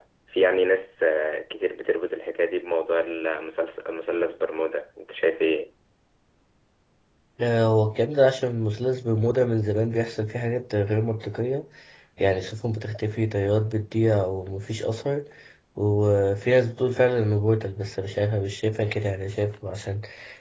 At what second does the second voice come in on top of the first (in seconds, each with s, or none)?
none